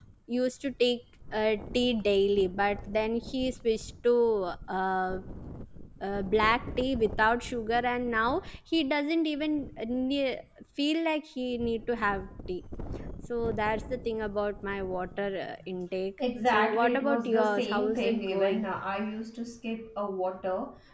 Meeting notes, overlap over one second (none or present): present